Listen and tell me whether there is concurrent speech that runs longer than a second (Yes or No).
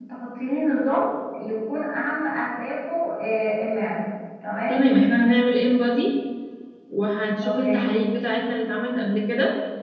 No